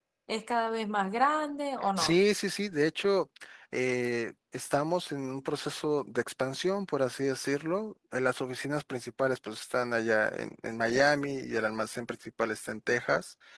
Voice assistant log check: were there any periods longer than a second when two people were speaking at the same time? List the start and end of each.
none

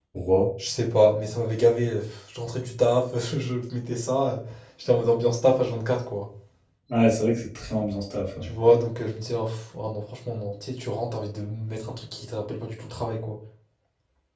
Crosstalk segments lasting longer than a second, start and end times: none

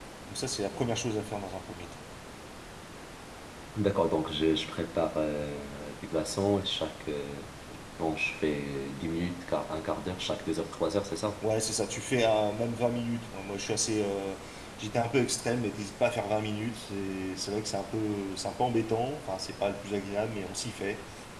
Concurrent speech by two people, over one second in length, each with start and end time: none

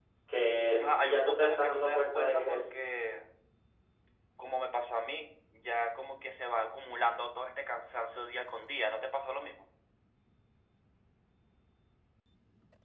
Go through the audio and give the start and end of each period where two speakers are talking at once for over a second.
0.8-2.6

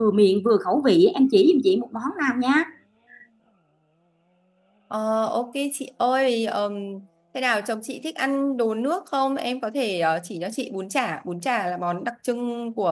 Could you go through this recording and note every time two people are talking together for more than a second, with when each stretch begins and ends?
none

